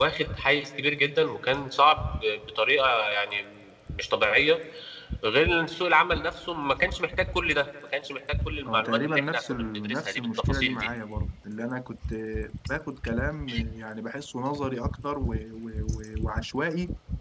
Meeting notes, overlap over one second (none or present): present